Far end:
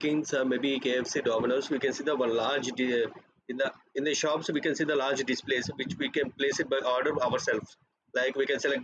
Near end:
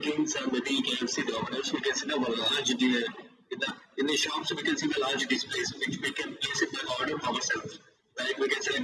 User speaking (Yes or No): No